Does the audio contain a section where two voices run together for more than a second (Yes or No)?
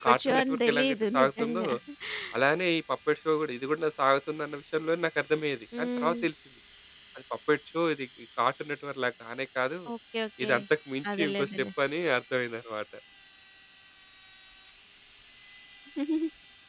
Yes